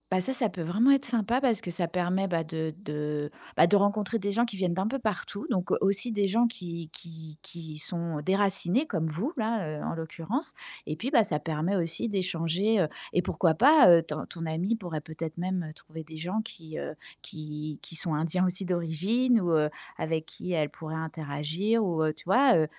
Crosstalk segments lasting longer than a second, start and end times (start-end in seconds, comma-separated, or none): none